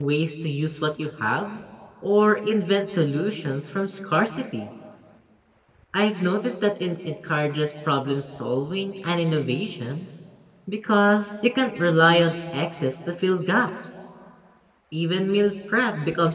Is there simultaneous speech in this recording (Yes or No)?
No